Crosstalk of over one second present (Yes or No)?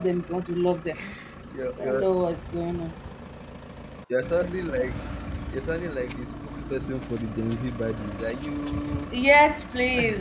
No